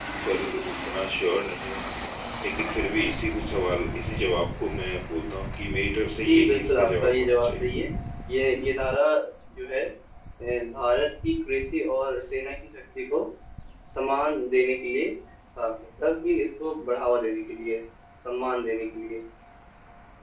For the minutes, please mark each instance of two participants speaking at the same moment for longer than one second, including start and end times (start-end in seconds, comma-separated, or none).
6.2-7.6